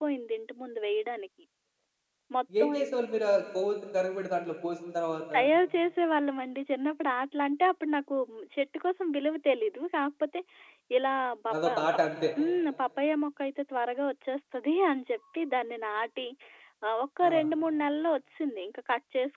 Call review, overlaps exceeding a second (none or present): none